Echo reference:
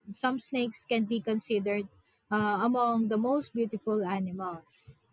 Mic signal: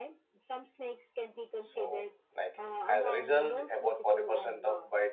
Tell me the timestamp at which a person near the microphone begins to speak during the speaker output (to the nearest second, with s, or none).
2 s